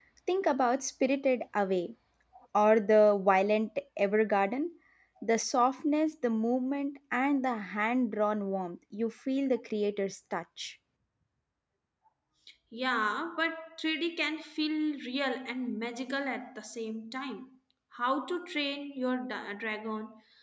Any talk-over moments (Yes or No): No